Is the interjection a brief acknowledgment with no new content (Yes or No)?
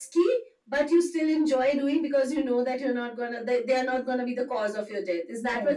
No